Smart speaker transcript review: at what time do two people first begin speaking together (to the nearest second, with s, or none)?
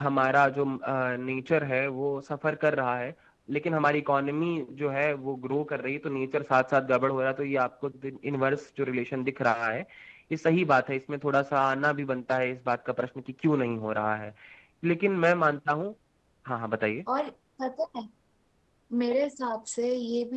none